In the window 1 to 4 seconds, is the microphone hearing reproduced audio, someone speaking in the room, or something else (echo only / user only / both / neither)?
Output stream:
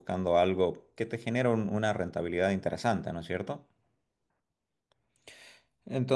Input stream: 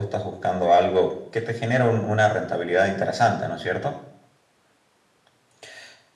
echo only